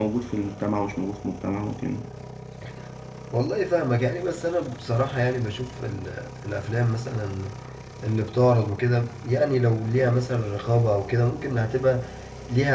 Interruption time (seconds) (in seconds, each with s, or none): none